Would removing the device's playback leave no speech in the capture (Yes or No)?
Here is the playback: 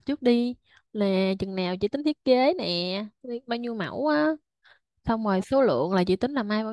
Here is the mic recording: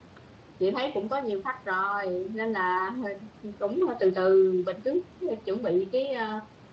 No